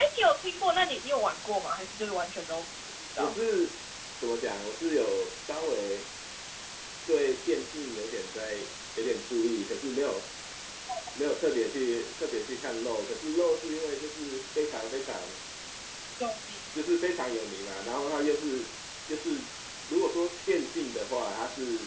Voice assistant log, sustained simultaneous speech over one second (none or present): none